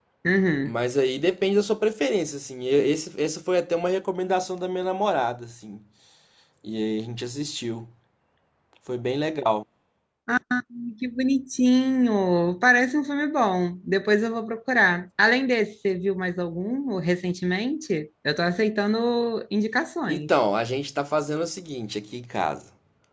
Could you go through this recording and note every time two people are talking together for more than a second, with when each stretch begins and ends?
none

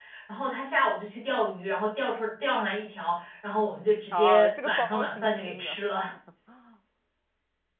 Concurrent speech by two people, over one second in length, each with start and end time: 4.1-5.8

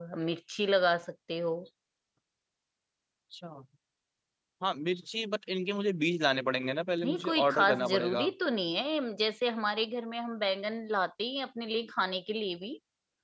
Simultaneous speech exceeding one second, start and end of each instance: 7.0-8.2

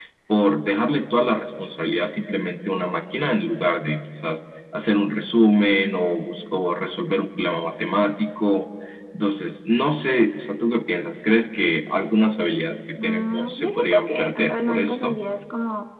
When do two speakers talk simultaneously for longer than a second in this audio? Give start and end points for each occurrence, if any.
12.9-15.2

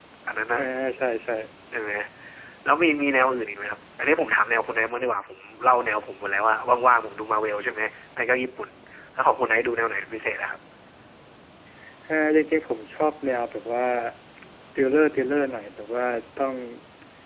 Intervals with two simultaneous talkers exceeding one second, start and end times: none

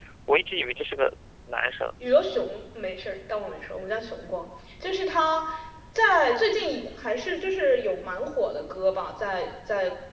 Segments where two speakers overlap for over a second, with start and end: none

